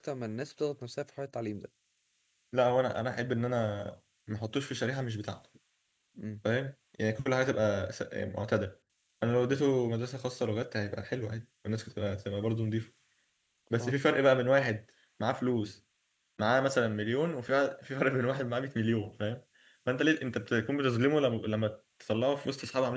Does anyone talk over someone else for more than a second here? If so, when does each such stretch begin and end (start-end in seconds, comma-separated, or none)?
none